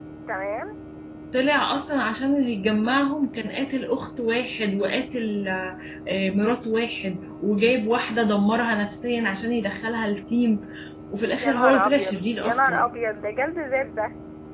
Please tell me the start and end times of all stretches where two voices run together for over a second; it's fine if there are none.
11.4-12.9

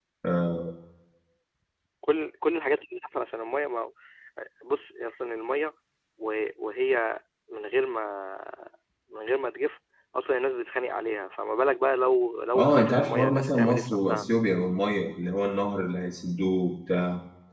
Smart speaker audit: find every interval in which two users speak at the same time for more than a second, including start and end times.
12.6-14.2

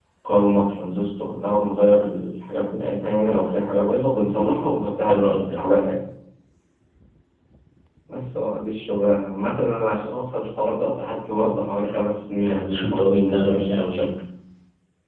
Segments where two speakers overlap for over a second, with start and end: 12.4-14.1

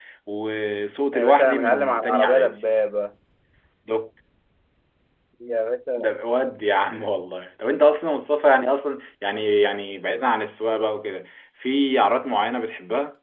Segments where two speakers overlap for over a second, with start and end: 1.1-2.5

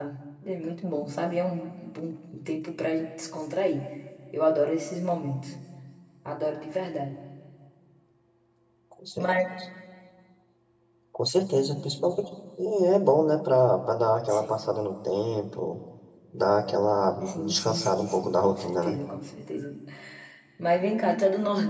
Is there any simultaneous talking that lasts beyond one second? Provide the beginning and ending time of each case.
17.3-18.9

